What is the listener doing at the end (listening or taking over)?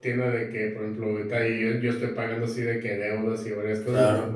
listening